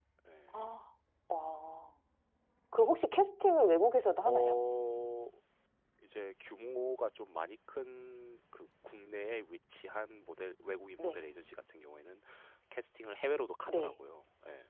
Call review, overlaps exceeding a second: none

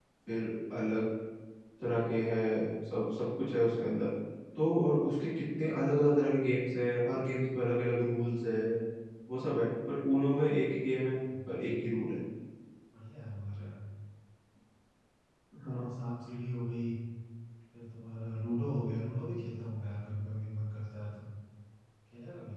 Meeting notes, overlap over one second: none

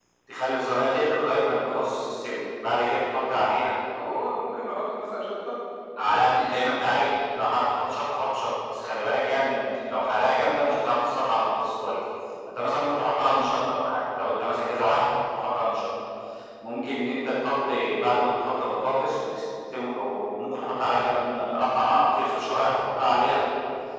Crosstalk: none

